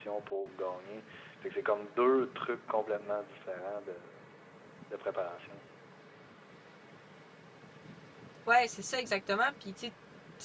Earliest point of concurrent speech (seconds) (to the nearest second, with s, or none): none